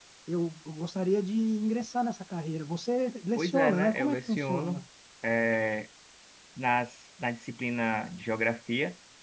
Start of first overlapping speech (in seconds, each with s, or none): 3.4 s